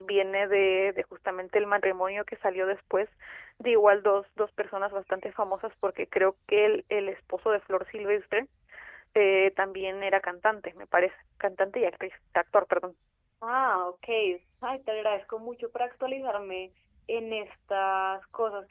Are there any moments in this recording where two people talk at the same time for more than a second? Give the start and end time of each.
none

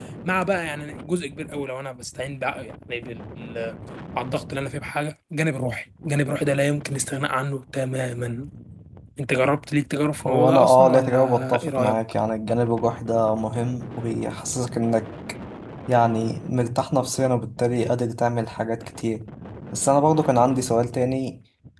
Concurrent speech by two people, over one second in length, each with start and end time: 10.2-12.0

